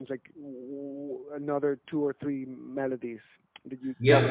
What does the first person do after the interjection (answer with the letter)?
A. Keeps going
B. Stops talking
B